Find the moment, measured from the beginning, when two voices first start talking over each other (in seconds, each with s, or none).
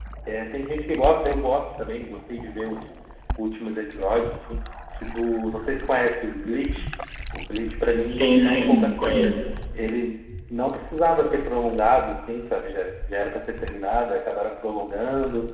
8.1 s